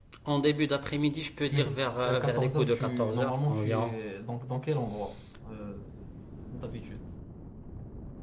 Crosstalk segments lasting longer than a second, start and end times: 1.5-4.0

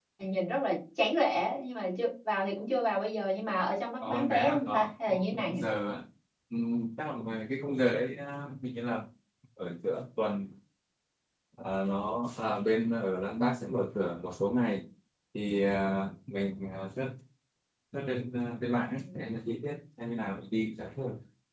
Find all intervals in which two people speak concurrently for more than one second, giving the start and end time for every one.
4.0-5.6

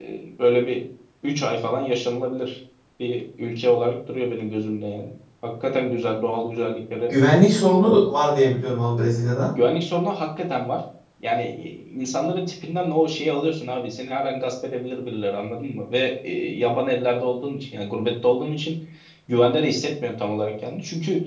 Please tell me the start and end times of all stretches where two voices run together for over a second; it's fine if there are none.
none

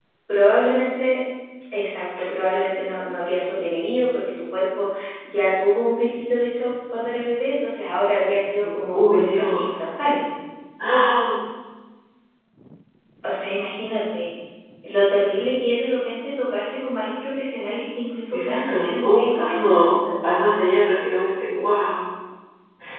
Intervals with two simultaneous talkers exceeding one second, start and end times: 8.6-9.9, 18.3-20.0

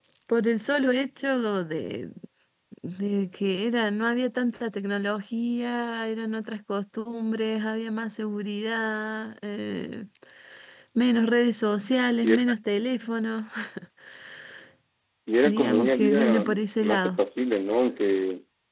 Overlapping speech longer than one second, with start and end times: 15.4-17.2

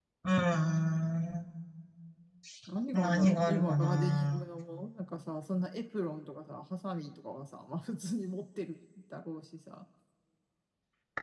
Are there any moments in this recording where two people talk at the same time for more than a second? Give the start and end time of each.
2.9-4.5

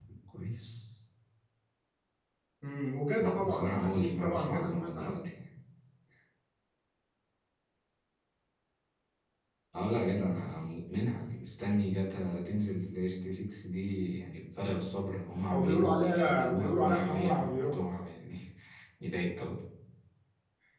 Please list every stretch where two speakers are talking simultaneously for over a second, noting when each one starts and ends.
3.2-5.3, 15.5-17.8

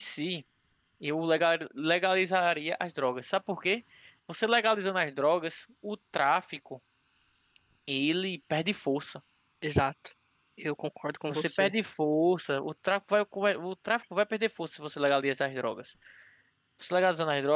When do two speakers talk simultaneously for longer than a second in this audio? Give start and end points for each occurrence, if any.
none

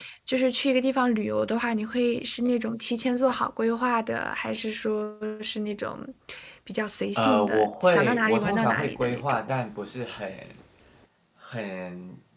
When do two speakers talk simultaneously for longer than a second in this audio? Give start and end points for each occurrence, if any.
7.2-9.4

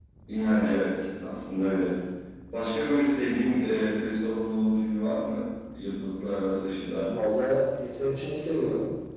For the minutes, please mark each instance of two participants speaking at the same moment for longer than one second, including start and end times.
none

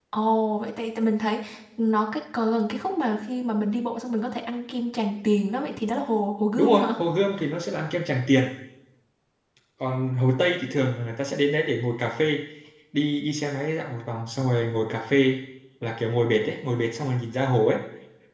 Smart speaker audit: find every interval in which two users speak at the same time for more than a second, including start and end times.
none

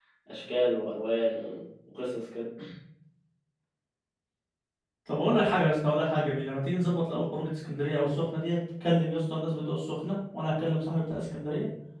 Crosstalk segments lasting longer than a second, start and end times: none

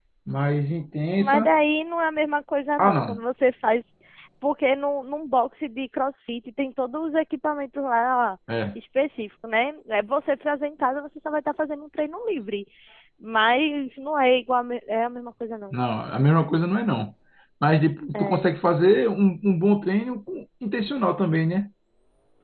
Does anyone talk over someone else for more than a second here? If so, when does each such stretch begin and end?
none

